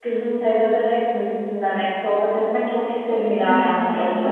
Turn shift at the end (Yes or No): Yes